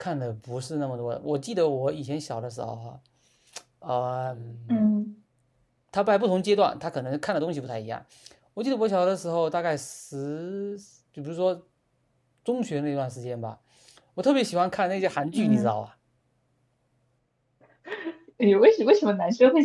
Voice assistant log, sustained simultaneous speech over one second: none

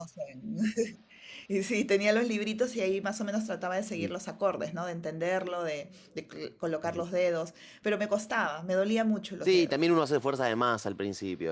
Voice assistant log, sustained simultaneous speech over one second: none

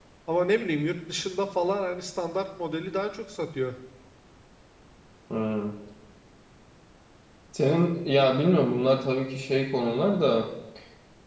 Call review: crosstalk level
none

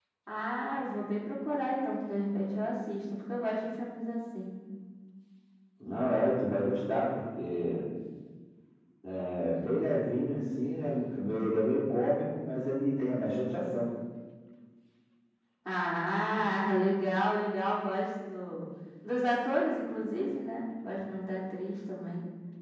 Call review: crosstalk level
none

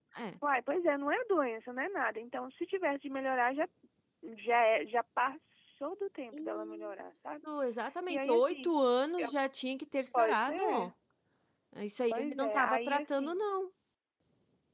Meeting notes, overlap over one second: present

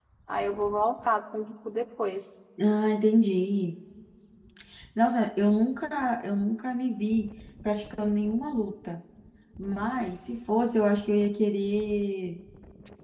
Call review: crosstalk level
none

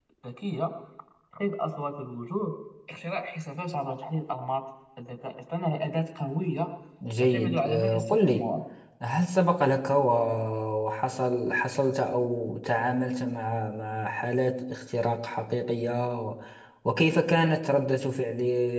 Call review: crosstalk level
present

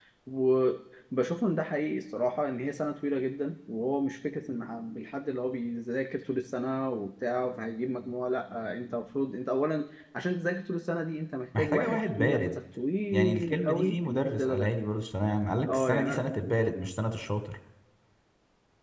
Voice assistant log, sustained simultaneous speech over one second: present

